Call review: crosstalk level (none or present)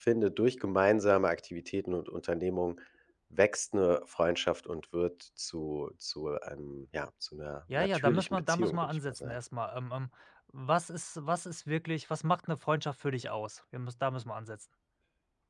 present